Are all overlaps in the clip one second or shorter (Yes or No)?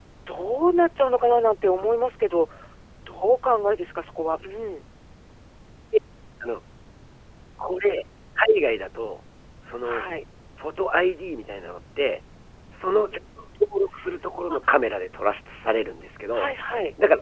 Yes